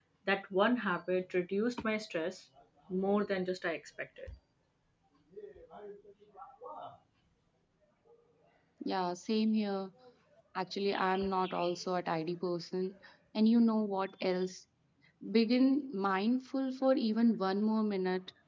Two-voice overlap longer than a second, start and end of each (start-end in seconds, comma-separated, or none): none